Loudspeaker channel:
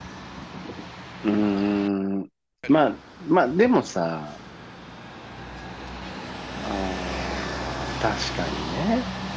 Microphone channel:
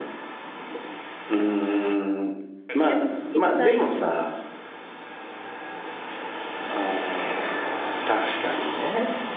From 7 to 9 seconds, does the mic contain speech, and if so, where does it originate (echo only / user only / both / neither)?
echo only